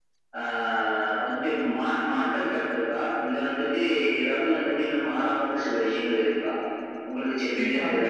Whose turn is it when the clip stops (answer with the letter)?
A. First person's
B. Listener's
B